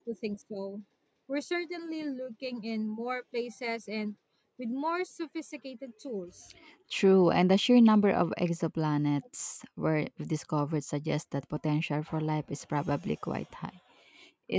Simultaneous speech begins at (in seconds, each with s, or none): none